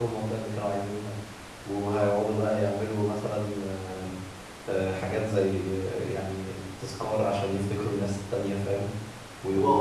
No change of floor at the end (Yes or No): No